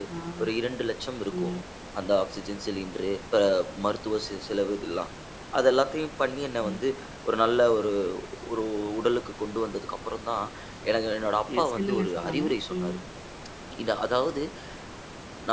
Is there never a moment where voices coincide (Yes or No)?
No